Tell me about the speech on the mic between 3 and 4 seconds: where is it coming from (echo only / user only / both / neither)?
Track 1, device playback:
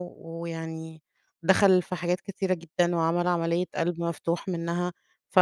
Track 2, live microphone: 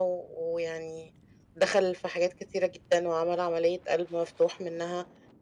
echo only